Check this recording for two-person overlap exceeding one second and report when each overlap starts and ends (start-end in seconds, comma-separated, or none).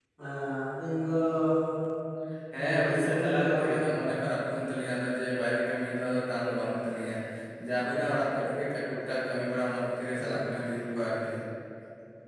2.6-3.9